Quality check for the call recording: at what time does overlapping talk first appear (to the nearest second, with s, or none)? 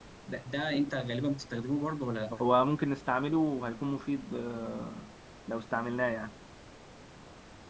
none